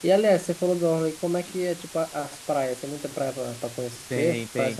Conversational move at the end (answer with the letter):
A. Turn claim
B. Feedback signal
A